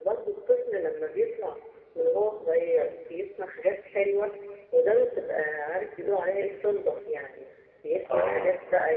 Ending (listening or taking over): listening